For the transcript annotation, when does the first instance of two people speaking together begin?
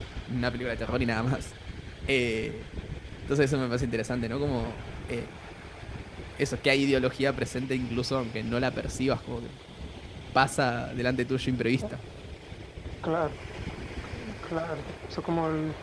none

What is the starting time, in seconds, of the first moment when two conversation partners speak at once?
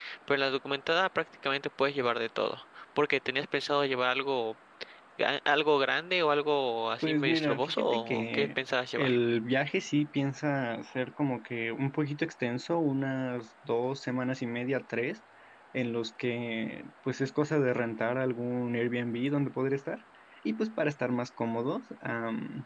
7.0 s

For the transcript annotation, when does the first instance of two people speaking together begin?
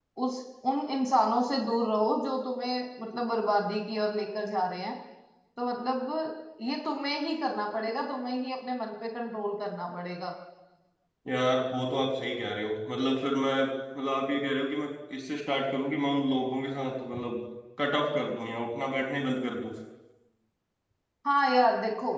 none

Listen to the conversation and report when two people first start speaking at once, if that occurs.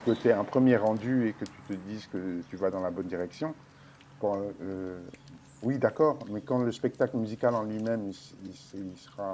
none

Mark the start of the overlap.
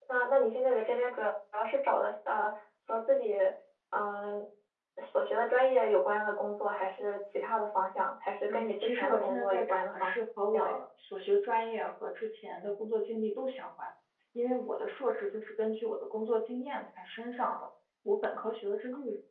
8.5 s

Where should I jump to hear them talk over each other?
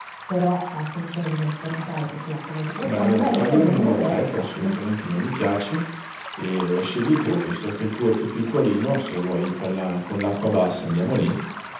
2.7 s

